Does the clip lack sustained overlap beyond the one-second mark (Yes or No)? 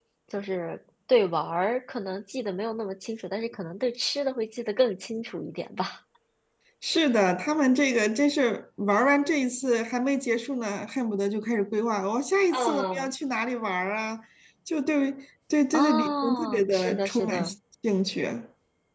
No